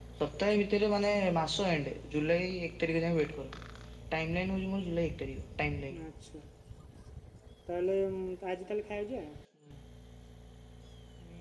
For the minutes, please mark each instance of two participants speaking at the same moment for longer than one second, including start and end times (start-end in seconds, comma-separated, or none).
none